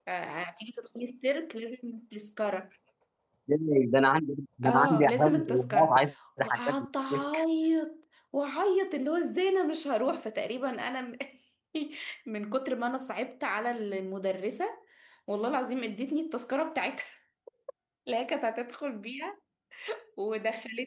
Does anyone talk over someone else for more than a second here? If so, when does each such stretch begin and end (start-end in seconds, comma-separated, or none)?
4.6-6.0